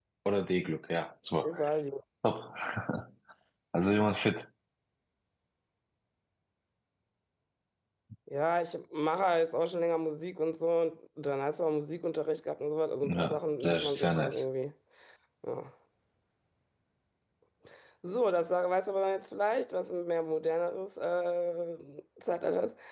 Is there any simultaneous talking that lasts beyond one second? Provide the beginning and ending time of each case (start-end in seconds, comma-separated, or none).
13.0-14.4